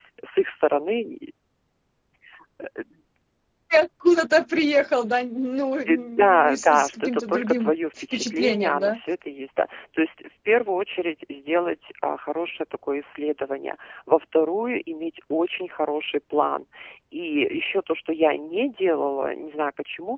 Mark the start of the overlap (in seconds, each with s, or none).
5.9 s